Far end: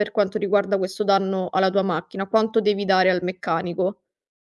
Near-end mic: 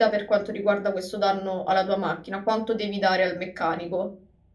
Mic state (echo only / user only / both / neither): echo only